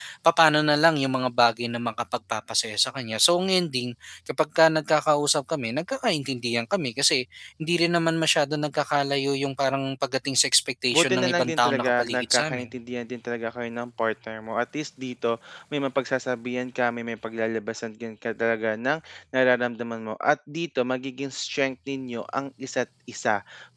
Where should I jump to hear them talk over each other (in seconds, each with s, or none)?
10.9 s